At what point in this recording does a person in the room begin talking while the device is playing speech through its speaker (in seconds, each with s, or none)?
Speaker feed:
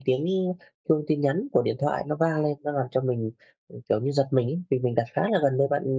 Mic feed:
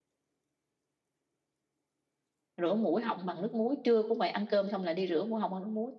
2.6 s